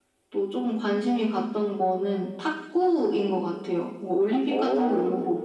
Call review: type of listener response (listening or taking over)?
listening